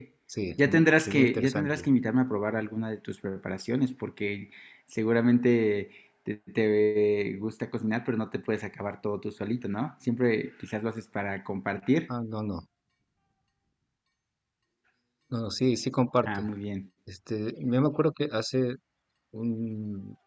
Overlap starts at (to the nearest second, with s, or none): 1 s